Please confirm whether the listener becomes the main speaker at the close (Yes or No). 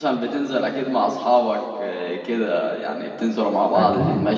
Yes